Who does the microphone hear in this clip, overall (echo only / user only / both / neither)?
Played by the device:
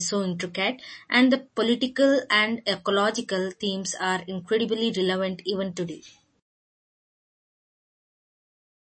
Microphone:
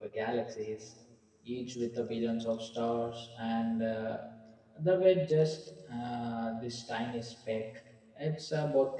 user only